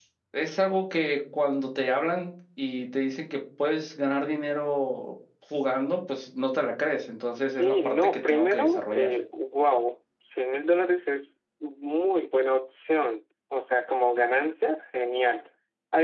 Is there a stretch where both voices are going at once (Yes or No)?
Yes